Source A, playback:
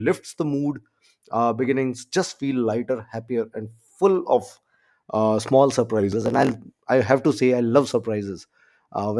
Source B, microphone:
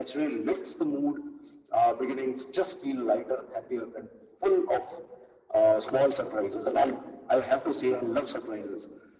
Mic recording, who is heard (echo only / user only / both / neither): echo only